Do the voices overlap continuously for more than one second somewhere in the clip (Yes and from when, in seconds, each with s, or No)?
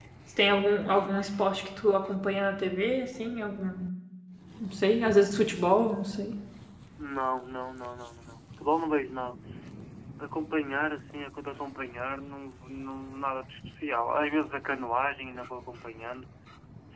No